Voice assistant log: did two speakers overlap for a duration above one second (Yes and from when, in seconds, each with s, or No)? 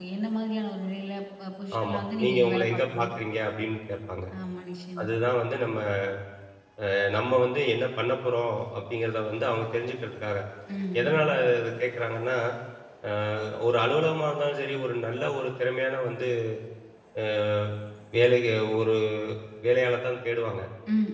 Yes, from 1.8 s